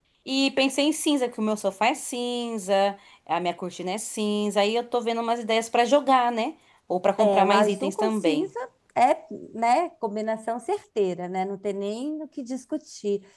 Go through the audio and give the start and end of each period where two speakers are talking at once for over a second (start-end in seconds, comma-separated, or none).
7.2-8.5